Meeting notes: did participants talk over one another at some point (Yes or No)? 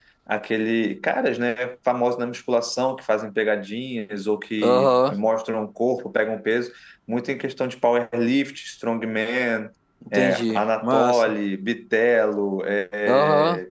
Yes